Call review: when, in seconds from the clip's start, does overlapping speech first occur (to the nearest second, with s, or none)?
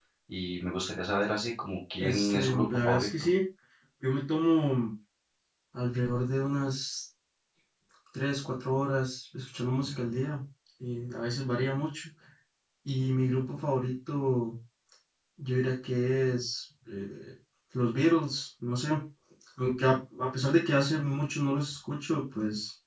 2 s